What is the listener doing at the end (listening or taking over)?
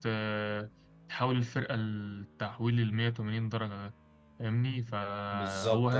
listening